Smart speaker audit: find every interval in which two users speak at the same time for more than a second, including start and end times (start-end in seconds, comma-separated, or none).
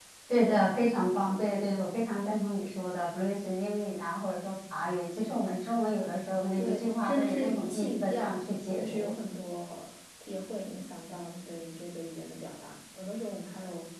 6.6-8.3